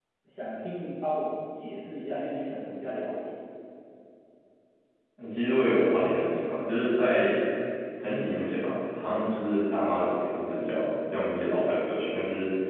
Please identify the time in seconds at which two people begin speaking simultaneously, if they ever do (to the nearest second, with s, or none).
none